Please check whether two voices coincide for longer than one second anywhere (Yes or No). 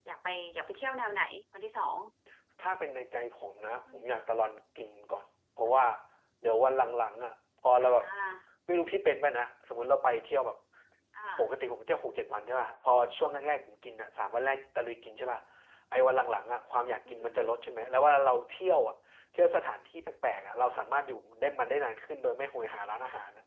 No